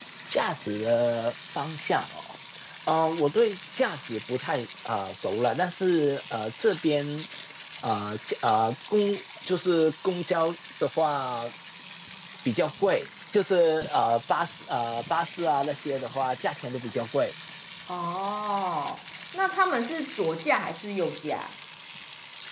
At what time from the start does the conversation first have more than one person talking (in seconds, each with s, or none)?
none